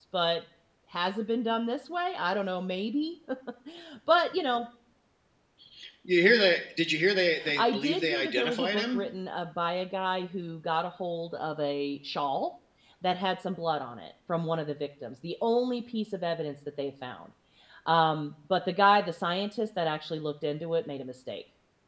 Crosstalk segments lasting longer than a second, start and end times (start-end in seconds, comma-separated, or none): 7.5-9.0